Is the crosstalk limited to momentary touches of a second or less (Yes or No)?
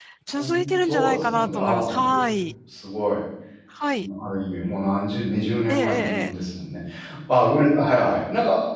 No